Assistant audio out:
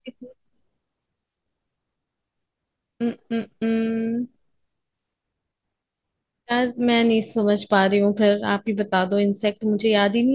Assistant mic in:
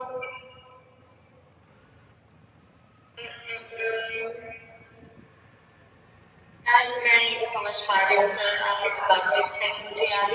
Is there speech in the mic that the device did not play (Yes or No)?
No